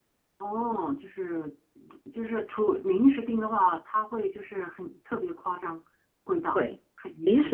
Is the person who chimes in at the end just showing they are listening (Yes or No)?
No